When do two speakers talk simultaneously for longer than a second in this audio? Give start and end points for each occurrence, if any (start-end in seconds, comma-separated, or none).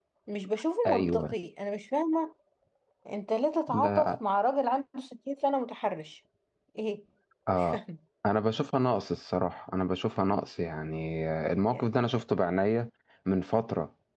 none